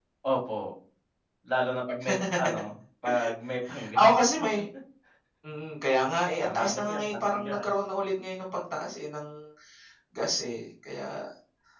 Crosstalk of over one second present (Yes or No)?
Yes